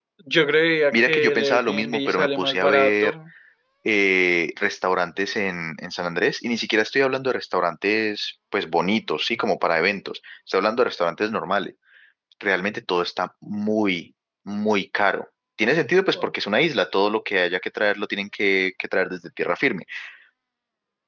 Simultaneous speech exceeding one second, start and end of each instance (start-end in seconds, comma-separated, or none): 0.9-3.1